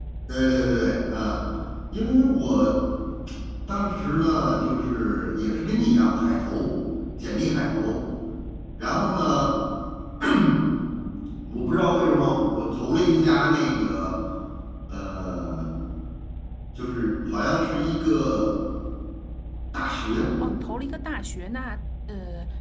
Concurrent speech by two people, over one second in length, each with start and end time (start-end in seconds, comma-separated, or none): none